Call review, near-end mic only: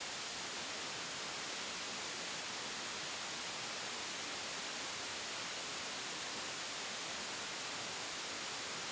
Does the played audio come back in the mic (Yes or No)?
No